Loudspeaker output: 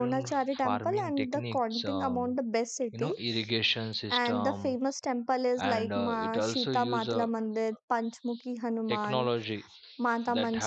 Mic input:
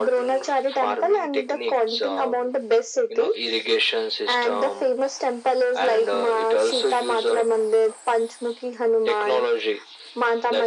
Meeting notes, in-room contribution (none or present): none